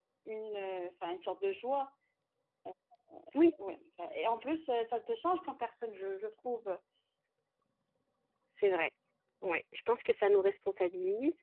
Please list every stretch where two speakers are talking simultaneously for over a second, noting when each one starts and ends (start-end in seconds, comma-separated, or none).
none